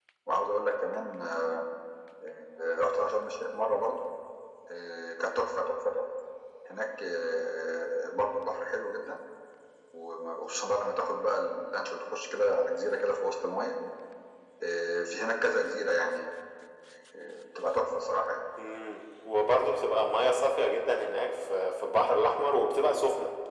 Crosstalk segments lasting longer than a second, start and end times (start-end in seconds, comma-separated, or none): none